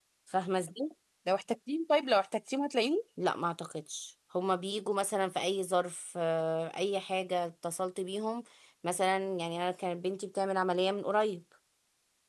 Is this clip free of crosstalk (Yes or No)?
Yes